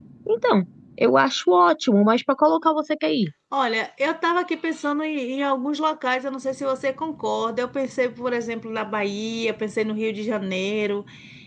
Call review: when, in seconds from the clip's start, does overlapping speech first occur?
none

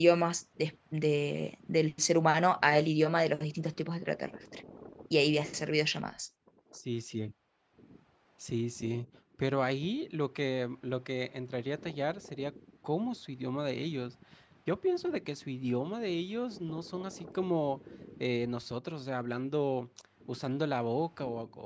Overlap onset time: none

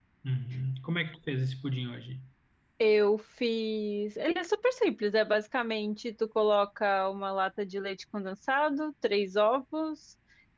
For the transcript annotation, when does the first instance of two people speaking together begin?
none

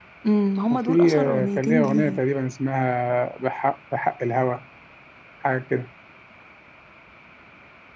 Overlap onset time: 1 s

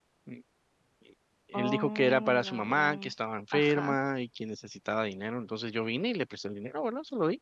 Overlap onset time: 2 s

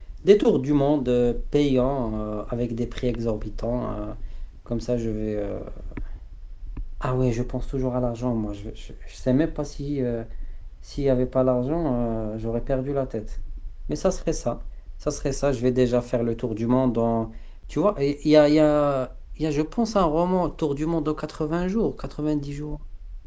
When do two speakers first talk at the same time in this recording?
none

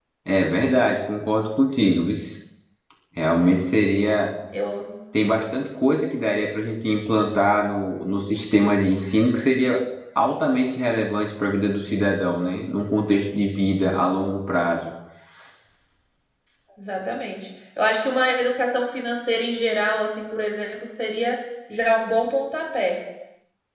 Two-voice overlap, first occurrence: none

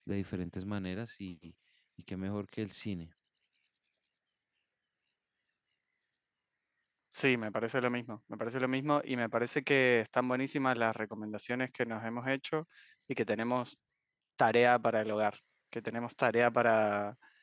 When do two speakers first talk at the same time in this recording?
none

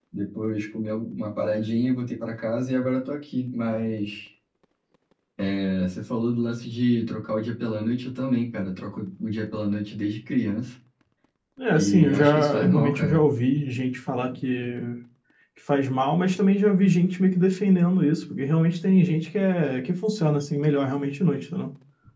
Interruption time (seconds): 12 s

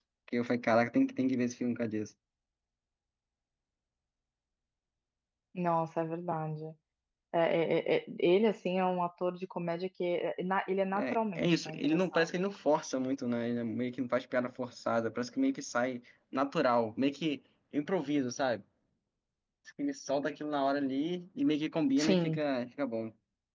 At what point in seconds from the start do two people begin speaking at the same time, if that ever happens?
11 s

